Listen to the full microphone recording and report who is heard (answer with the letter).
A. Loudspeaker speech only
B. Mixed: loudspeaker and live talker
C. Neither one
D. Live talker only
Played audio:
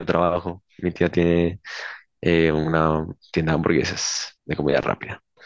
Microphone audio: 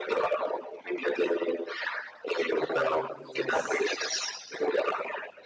B